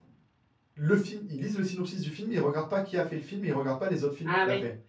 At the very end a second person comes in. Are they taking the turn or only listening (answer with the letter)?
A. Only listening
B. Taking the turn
B